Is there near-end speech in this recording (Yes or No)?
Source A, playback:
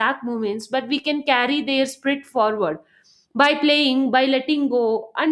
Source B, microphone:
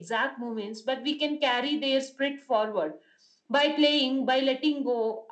No